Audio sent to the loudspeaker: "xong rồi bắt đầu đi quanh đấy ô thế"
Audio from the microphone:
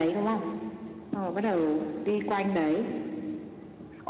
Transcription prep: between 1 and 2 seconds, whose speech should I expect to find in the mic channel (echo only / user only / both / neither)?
echo only